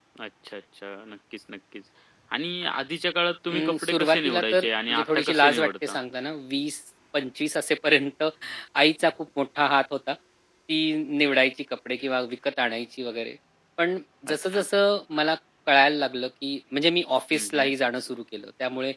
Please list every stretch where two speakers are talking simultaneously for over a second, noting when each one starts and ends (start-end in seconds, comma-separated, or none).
3.5-6.0